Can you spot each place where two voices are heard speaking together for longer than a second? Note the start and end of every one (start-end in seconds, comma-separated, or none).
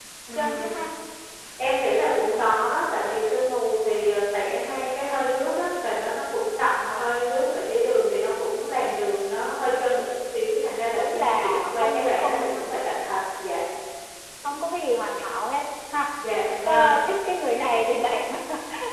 10.9-12.5